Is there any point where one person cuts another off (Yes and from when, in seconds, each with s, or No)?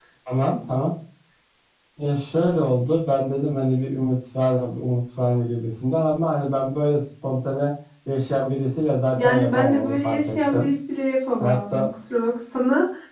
Yes, from 9.1 s